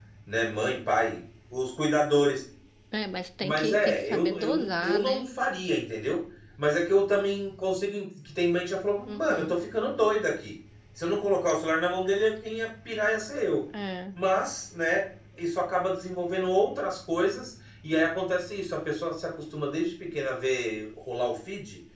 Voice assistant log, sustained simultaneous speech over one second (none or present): present